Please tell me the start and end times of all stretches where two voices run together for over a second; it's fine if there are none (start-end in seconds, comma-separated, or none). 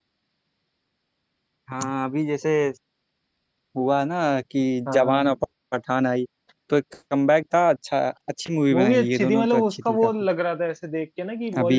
8.7-10.1